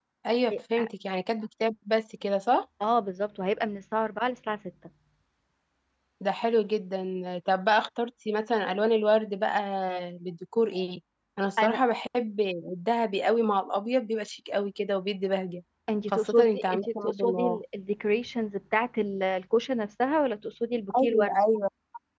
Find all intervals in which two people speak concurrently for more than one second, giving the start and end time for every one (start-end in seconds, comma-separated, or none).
16.1-17.6